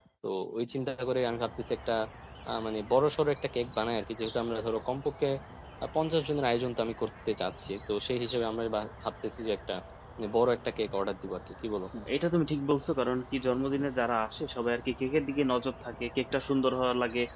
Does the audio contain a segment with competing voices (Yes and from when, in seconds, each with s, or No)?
No